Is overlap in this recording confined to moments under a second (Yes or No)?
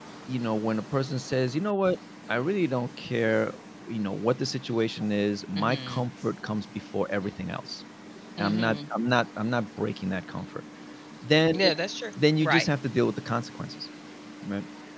Yes